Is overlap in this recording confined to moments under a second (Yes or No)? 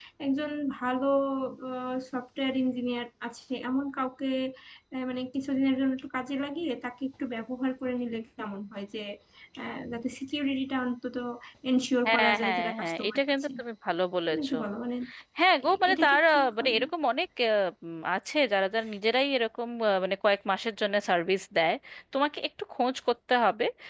No